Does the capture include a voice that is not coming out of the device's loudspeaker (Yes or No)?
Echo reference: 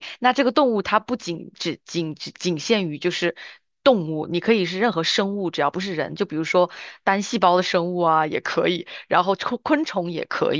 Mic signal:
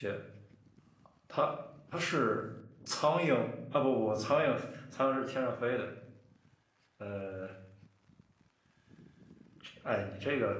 Yes